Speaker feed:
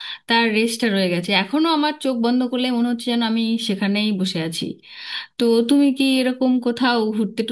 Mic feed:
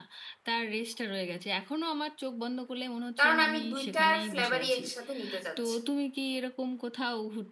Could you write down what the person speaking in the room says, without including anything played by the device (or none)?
কারণ আমি দুইটার ফ্লেভারই একসাথে নিতে চাচ্ছি